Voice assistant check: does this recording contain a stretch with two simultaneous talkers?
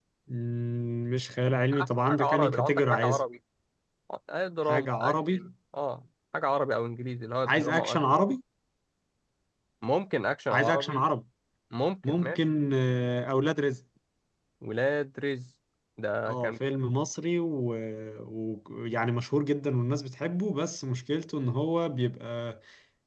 Yes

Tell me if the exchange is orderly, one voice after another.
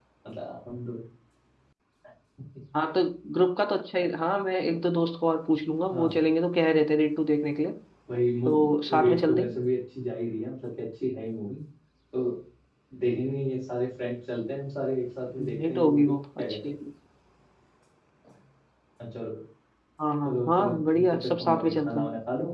No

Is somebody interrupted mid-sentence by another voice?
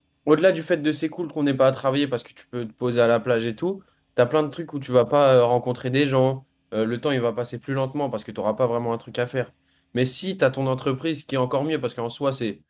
No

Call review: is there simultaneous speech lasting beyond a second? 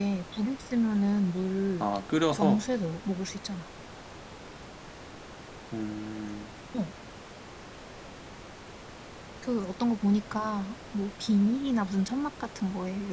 No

